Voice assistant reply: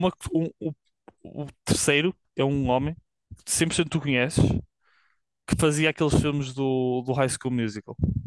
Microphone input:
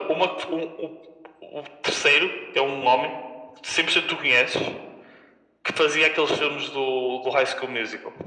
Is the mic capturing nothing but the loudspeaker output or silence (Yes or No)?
Yes